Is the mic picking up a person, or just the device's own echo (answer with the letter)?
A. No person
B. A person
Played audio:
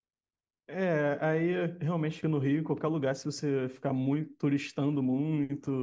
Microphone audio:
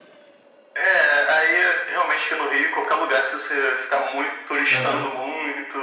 B